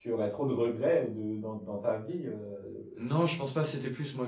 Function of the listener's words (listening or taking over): taking over